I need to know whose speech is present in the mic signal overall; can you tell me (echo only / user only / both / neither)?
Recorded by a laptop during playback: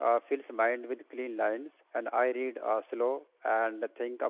user only